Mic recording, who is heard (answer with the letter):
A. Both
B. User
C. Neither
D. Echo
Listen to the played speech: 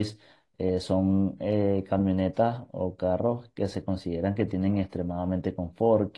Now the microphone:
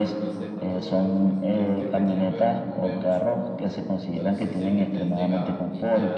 A